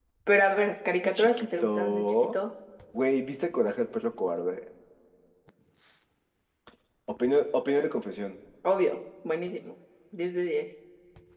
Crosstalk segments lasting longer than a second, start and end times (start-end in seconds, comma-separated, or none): 1.0-2.3